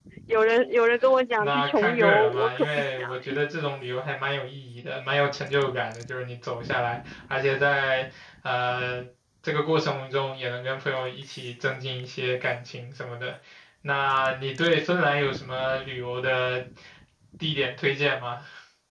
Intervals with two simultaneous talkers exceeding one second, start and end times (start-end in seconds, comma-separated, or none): 1.4-3.4